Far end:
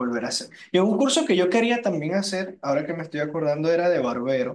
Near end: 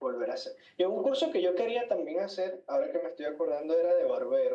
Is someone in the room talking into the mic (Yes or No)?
No